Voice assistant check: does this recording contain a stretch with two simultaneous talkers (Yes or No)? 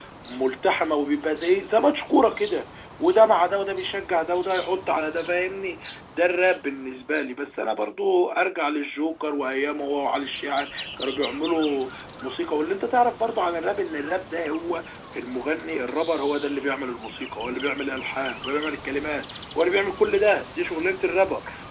No